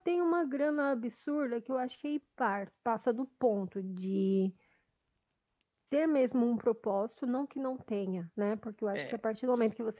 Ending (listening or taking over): listening